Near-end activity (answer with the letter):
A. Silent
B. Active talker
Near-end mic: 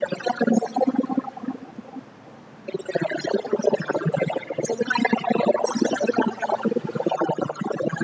A